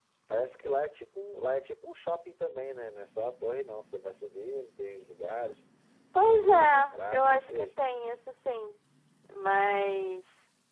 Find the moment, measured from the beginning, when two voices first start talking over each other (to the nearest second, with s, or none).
6 s